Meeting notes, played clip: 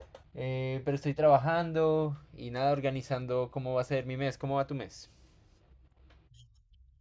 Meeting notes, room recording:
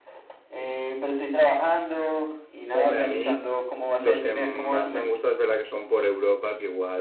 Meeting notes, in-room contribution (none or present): present